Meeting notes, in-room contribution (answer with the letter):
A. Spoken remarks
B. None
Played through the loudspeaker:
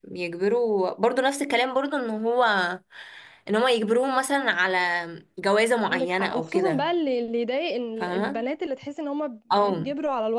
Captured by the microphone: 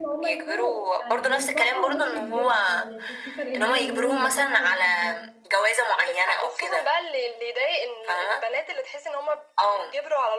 A